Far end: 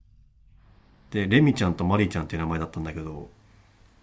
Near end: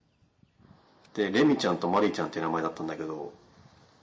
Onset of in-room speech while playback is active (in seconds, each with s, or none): none